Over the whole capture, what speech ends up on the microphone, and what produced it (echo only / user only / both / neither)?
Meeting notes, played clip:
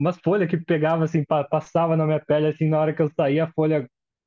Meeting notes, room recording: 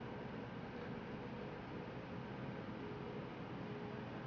neither